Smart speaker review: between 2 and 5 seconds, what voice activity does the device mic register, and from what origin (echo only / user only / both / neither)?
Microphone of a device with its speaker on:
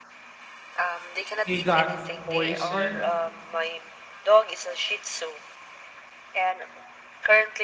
both